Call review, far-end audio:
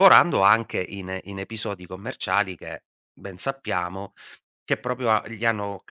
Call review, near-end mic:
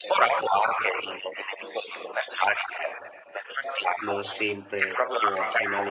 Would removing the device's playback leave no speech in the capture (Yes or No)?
No